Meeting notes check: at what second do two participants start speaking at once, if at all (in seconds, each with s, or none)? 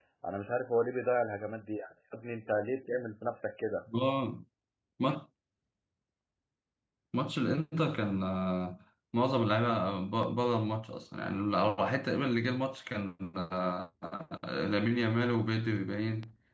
none